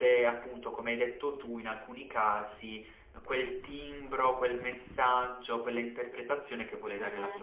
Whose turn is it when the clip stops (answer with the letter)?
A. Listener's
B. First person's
A